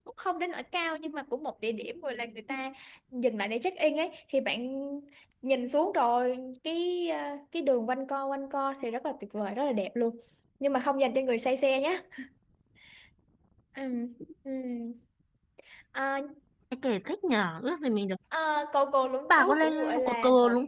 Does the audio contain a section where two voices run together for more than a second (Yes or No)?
Yes